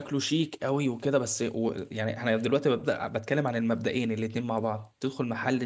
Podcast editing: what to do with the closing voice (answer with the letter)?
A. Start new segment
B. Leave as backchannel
B